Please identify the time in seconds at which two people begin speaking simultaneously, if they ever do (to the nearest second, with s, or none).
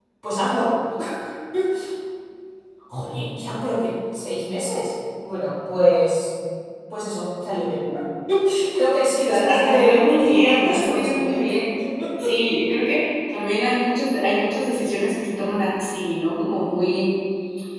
9 s